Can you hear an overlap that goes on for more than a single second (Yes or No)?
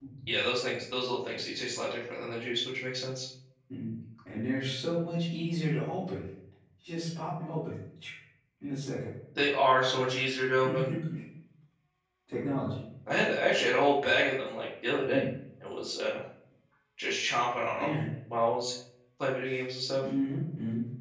No